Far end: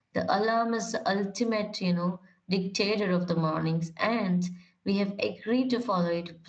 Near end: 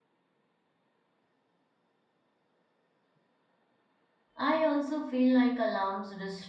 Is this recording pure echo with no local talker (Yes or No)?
No